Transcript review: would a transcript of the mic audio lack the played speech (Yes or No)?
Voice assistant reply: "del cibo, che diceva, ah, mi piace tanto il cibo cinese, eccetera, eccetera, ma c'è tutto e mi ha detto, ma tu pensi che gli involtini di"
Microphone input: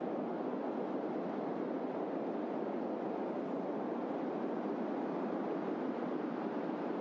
Yes